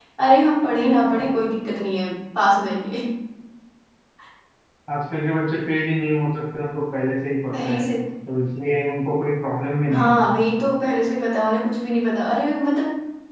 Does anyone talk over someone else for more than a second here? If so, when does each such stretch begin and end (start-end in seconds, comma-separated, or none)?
none